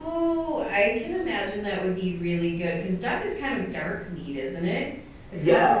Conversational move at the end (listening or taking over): listening